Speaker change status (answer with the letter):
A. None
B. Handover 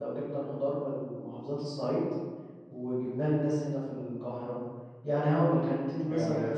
B